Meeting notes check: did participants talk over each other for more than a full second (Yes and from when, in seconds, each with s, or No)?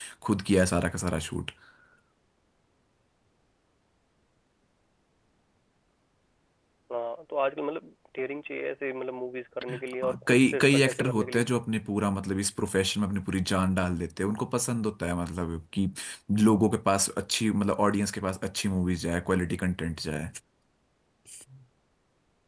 Yes, from 9.6 s